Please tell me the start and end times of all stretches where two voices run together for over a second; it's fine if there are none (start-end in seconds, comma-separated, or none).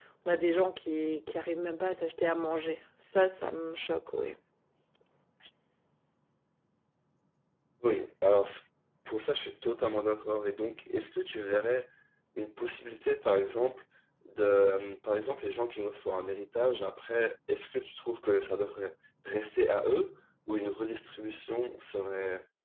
none